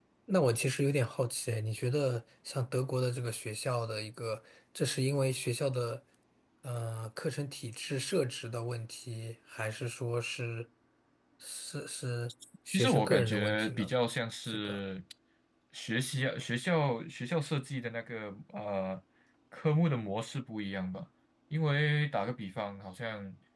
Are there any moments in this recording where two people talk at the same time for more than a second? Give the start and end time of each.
12.7-13.9

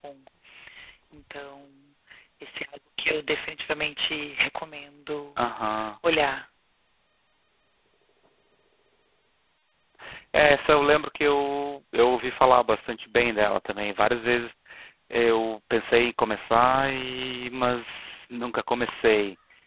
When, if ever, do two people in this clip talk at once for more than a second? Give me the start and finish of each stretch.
none

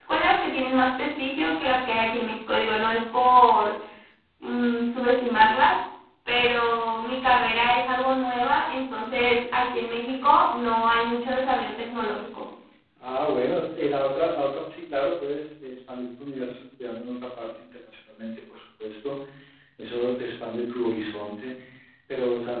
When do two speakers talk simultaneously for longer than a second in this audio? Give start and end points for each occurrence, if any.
none

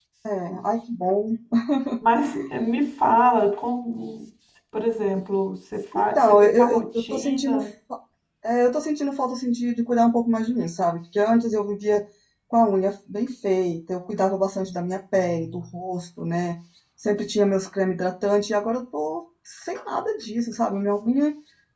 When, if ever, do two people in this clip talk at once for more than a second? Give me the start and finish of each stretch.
5.9-7.6

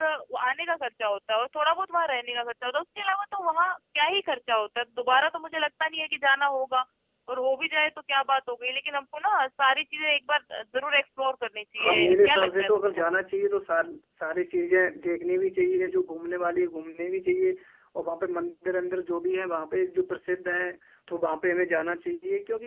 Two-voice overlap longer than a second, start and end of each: 11.8-13.1

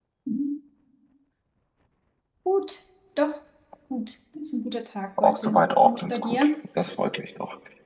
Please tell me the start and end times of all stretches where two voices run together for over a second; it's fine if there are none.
5.2-6.5

